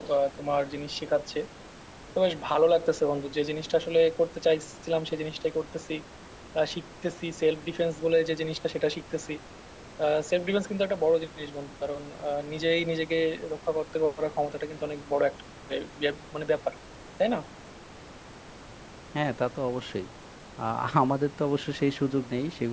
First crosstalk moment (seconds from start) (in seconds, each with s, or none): none